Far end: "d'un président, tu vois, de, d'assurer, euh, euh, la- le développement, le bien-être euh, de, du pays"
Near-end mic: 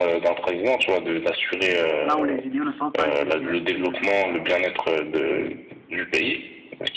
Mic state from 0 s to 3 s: both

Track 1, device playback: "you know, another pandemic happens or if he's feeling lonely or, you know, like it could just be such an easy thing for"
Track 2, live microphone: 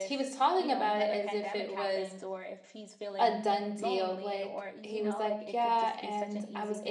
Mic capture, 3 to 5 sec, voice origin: both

